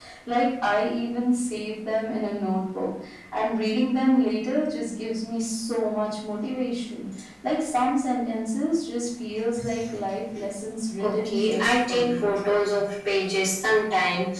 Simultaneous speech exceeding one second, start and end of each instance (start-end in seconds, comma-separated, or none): 11.0-12.2